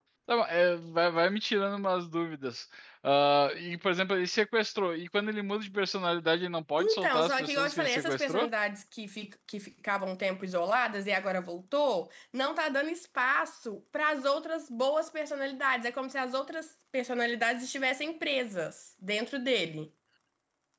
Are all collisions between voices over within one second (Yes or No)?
No